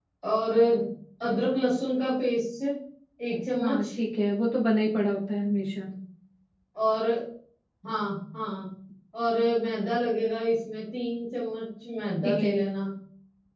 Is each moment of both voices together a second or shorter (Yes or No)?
Yes